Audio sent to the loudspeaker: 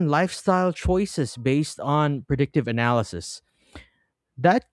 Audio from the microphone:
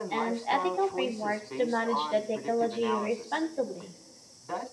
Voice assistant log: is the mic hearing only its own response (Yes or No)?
No